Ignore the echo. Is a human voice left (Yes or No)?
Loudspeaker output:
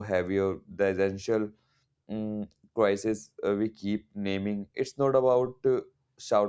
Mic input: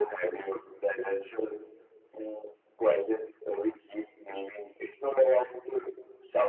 No